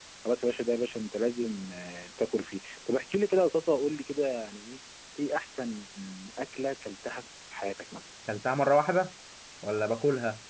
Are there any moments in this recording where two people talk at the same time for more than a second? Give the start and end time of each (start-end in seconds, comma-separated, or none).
none